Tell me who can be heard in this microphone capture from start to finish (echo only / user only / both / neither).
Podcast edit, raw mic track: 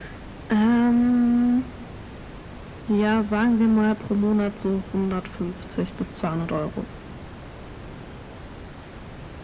echo only